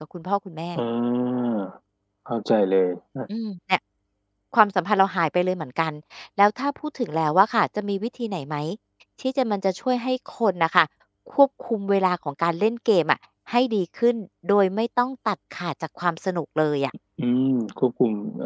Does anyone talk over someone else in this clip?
No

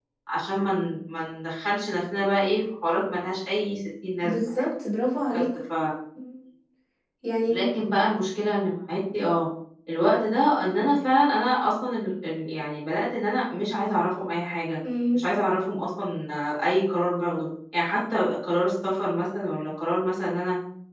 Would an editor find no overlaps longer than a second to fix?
Yes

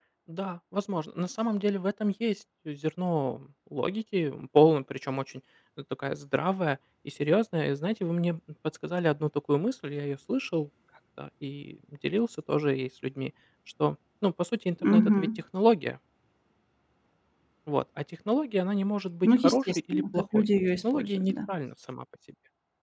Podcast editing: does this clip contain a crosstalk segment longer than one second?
Yes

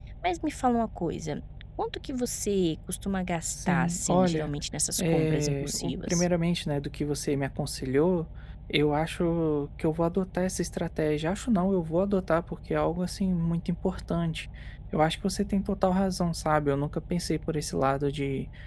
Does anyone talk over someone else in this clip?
Yes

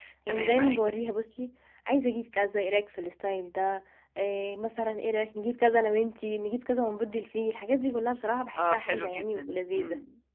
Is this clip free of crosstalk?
No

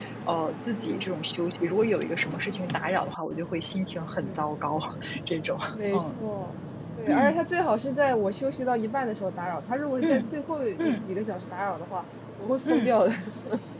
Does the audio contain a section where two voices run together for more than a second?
No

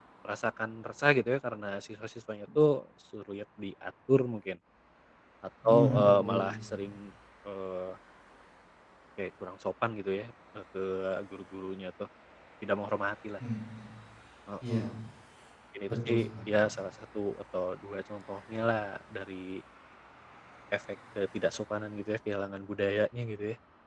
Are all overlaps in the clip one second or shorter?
No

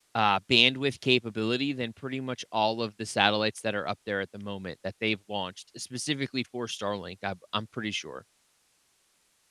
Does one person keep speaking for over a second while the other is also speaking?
No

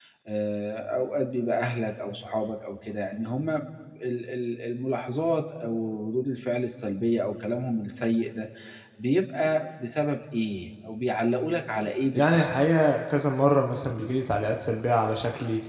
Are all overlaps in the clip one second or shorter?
Yes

